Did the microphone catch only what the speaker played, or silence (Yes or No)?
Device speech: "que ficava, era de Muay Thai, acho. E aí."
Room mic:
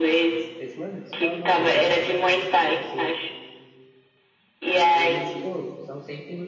No